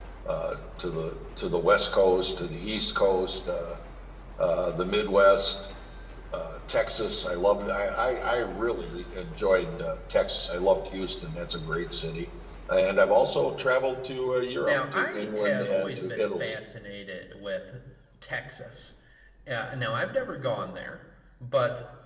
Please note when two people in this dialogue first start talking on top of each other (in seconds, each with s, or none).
14.6 s